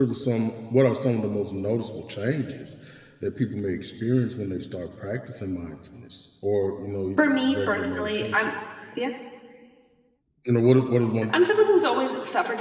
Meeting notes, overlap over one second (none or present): present